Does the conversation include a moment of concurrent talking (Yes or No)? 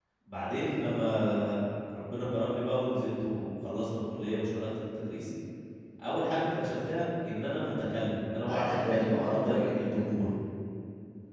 Yes